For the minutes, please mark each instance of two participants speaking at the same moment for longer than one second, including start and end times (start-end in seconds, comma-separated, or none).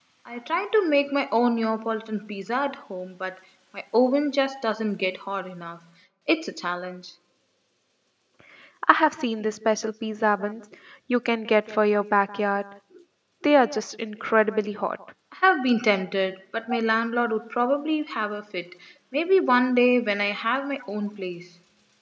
none